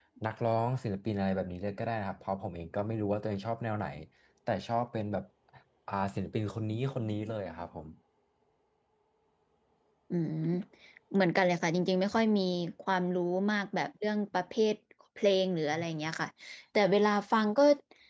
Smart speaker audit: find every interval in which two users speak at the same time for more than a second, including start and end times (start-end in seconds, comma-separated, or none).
none